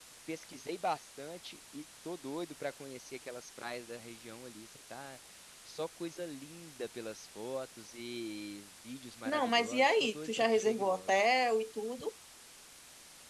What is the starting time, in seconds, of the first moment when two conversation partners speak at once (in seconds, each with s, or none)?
9.2 s